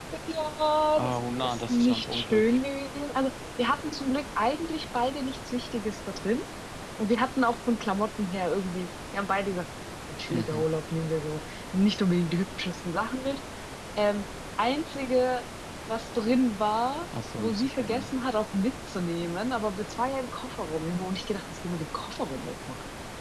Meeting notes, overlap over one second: present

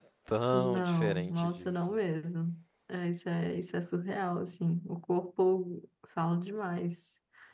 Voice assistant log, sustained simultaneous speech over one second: present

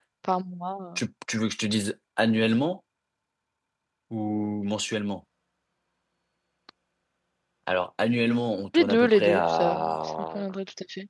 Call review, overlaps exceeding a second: present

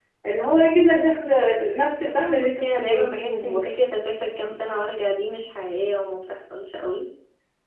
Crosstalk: present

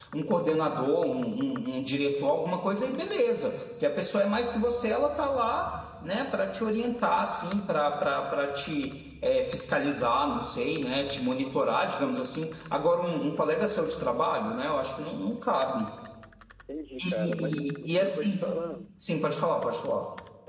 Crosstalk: present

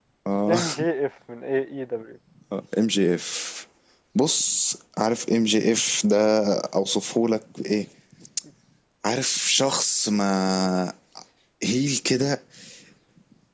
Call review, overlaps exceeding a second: none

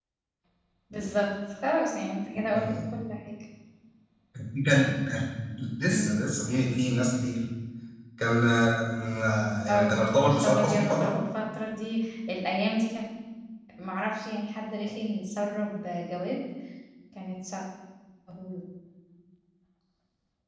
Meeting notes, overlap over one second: present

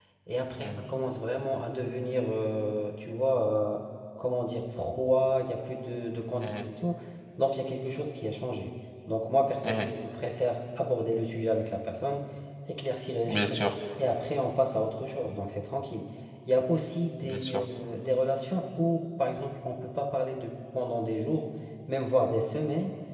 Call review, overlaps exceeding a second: none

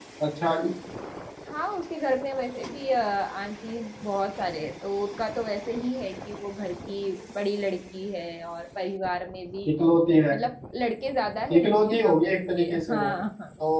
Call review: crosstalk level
present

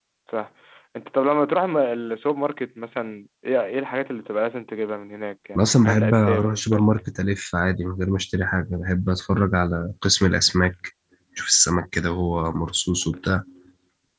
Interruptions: present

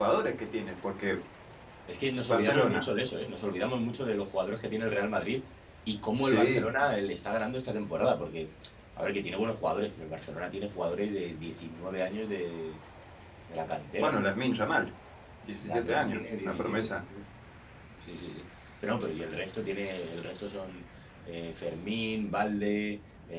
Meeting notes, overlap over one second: present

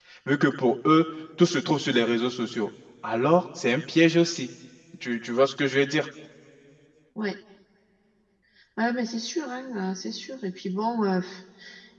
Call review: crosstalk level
none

